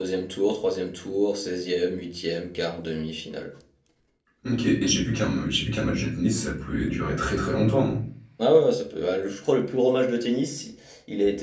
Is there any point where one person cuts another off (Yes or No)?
No